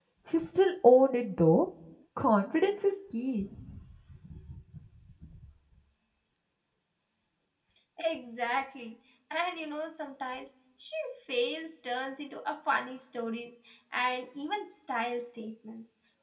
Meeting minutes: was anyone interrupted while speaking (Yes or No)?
No